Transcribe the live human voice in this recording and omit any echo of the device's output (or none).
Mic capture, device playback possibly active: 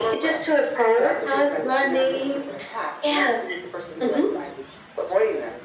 none